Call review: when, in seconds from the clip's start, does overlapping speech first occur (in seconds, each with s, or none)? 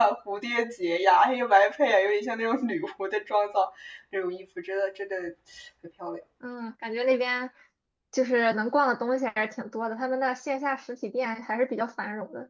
none